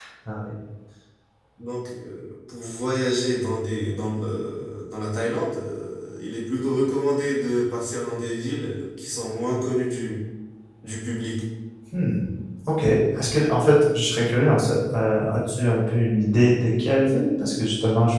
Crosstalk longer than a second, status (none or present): none